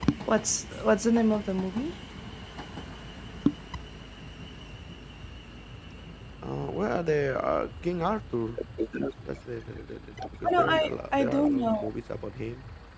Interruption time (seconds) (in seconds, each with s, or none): 10.5 s